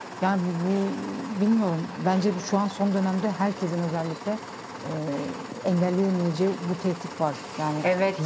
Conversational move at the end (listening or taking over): taking over